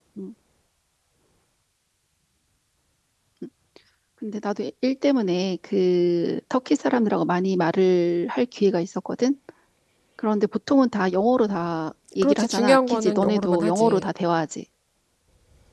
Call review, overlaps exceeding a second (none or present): present